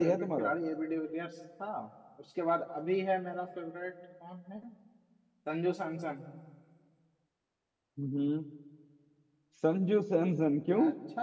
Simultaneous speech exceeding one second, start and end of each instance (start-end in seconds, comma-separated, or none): none